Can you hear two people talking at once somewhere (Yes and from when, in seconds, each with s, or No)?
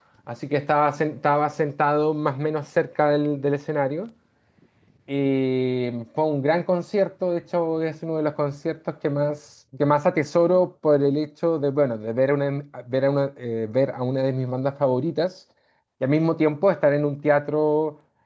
No